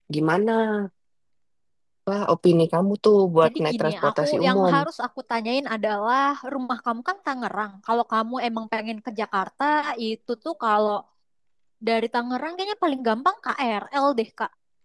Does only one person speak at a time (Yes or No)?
No